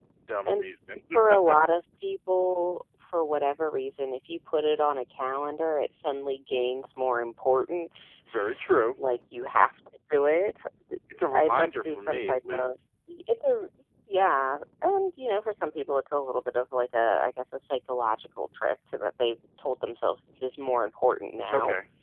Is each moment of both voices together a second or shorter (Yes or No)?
No